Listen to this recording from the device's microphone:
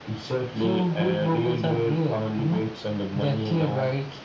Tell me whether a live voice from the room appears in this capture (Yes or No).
No